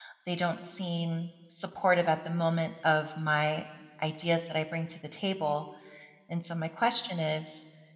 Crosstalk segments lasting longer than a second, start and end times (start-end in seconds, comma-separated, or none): none